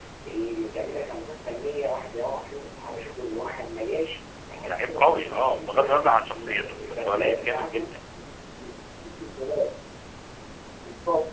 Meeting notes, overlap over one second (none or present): present